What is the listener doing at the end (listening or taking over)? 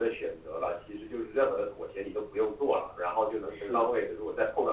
listening